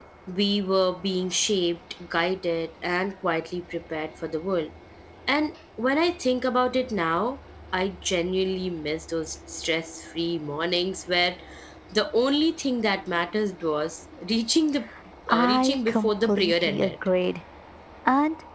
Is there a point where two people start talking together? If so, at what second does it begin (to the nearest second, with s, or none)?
15 s